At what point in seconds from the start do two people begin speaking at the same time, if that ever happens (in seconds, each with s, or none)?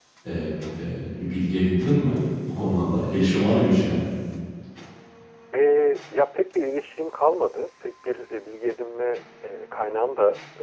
none